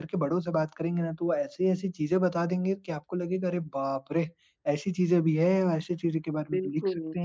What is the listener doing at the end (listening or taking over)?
listening